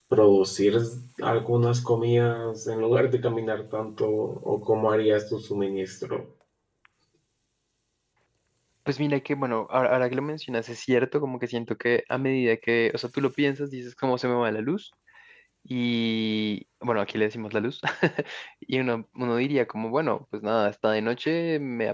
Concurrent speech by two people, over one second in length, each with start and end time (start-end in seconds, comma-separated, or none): none